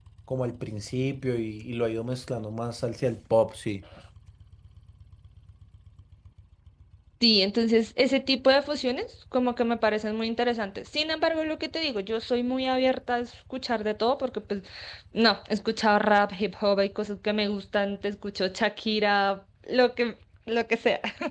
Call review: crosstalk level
none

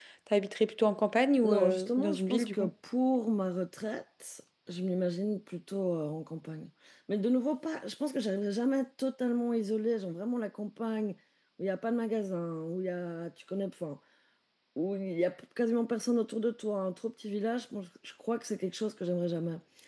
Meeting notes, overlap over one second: present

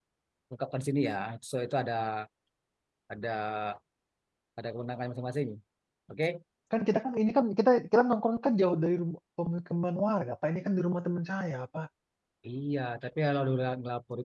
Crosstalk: none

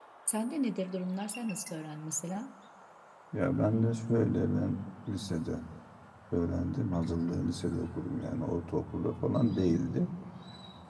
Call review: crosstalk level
none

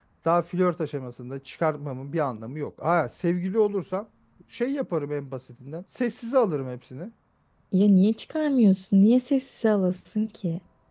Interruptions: none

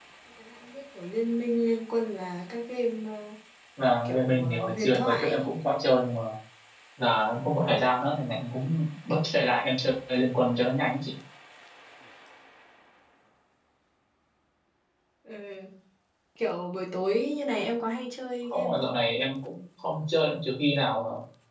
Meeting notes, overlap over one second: present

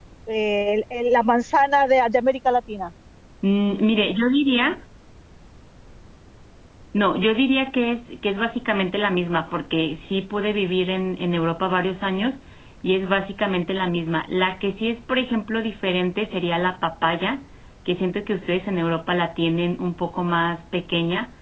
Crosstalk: none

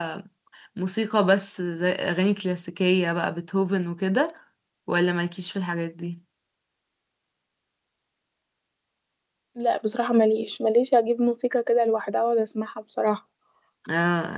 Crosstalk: none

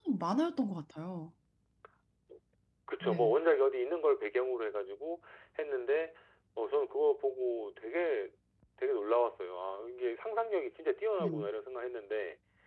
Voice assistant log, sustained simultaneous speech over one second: none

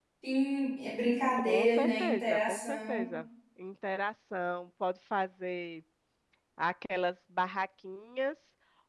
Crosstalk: present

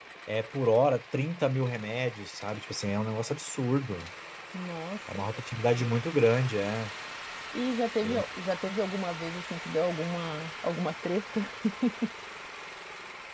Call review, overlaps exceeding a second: none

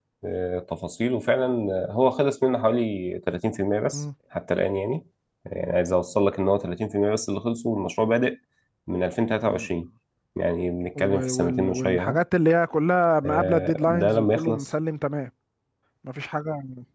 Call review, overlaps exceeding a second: present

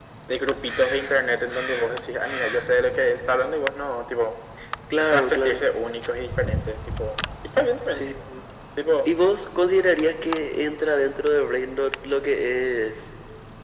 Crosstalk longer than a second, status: none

